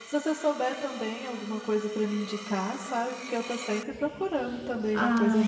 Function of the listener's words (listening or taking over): taking over